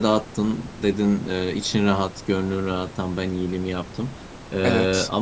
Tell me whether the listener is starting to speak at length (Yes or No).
No